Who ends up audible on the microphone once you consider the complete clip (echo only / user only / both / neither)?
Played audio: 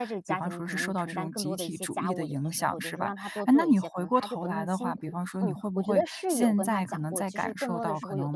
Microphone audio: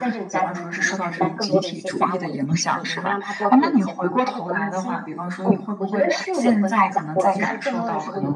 echo only